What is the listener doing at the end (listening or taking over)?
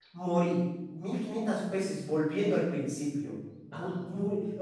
listening